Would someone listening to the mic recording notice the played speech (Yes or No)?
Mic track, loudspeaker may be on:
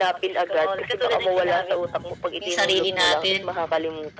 Yes